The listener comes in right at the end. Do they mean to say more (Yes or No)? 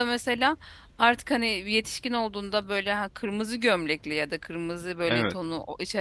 No